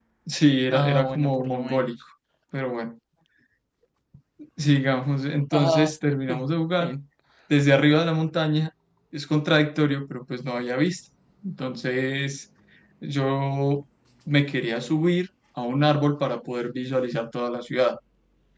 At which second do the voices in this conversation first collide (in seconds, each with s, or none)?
0.7 s